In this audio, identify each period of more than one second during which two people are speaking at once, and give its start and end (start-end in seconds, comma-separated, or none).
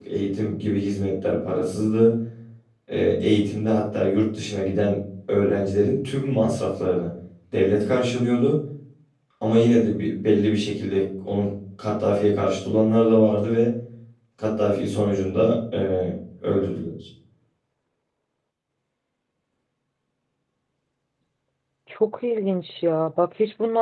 none